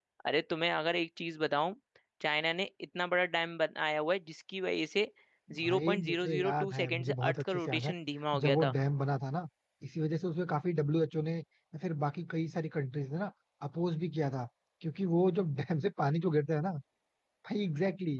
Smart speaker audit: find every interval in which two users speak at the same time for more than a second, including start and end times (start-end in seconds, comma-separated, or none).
5.6-7.9